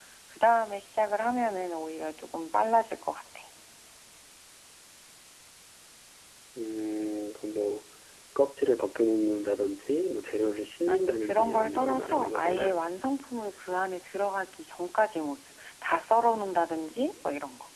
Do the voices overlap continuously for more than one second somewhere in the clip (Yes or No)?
Yes